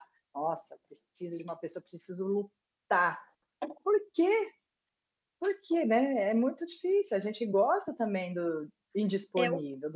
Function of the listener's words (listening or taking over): taking over